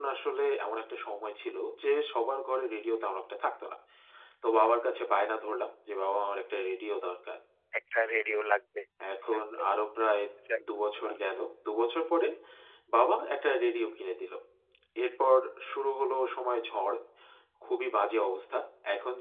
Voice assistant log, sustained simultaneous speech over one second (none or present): none